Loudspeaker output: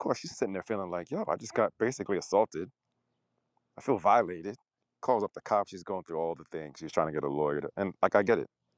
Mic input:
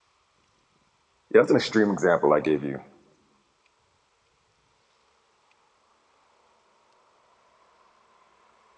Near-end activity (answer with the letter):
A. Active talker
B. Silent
A